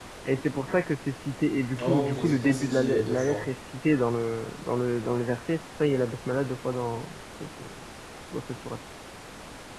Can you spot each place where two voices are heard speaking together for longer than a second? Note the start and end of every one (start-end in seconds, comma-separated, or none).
1.8-3.4